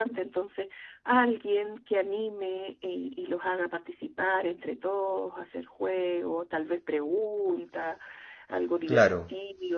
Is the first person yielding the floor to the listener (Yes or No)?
No